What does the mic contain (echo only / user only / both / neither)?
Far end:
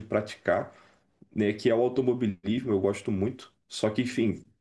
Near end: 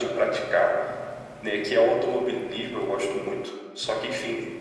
echo only